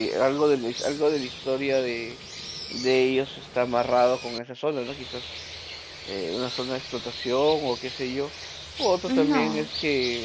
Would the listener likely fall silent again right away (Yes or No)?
Yes